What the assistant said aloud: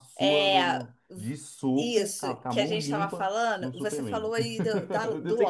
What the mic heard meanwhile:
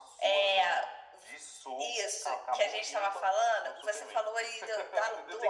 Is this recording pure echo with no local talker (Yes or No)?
Yes